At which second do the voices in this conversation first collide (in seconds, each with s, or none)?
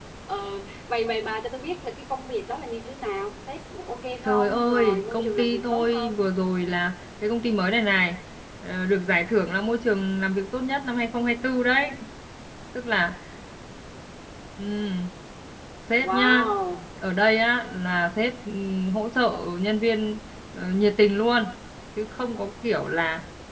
4.2 s